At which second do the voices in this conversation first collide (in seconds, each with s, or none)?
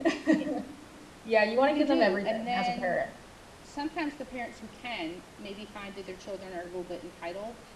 1.7 s